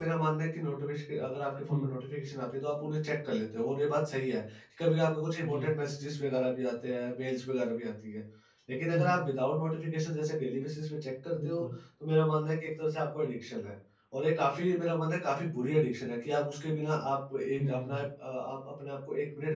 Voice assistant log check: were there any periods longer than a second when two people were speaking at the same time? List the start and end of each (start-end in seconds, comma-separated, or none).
none